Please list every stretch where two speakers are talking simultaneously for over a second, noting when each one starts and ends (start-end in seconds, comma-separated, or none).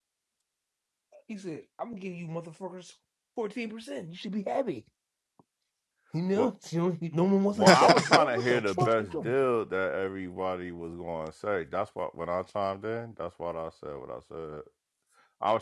7.5-9.3